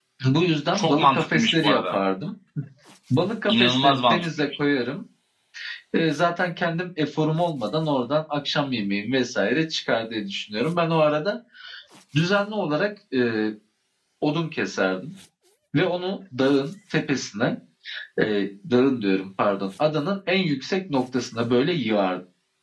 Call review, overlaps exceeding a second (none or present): present